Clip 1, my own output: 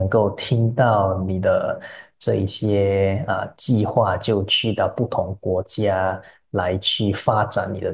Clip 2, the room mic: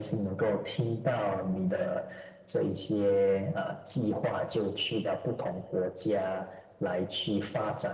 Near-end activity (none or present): none